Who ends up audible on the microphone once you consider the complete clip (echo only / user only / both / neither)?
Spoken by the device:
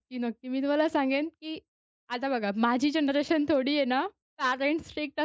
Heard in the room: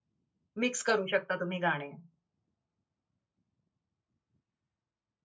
user only